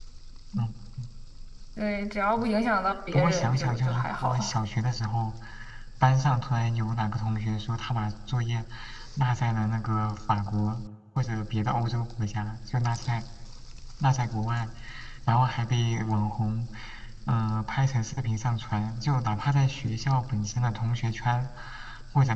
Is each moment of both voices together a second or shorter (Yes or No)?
No